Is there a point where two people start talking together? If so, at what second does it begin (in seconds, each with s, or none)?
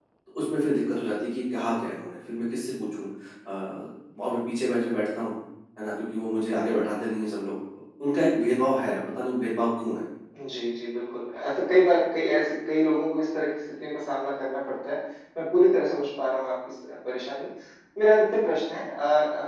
none